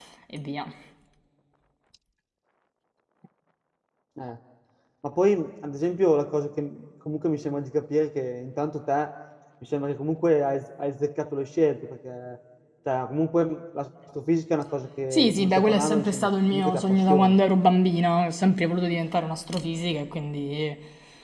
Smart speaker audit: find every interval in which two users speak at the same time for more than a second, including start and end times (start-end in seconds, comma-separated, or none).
15.1-17.4